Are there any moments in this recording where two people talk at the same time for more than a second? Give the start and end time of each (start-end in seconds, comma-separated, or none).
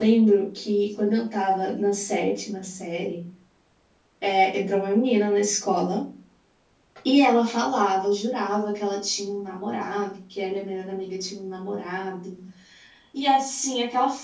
none